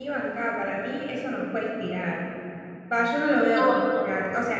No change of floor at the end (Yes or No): Yes